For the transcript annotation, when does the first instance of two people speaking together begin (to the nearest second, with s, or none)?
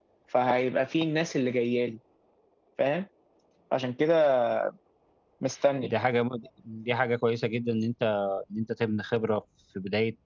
none